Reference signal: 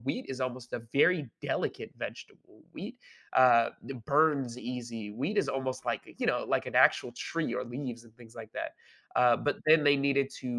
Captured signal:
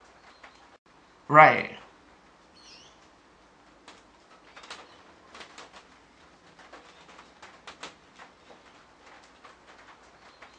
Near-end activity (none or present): present